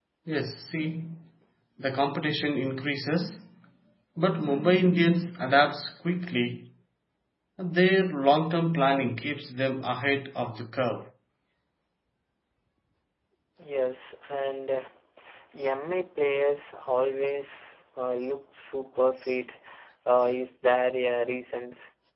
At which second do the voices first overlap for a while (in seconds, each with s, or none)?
none